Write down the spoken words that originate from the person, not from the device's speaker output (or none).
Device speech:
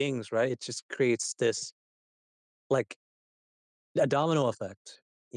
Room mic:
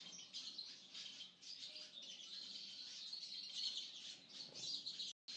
none